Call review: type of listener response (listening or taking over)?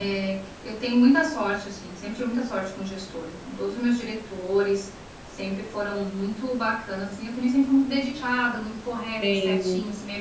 listening